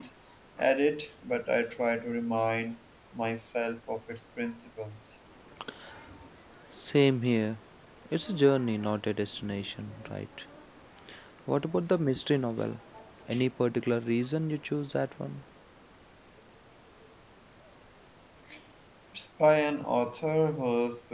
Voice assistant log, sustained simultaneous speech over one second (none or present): none